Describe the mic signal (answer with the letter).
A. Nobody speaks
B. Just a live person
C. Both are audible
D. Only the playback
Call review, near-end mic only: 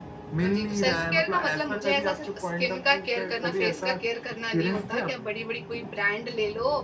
C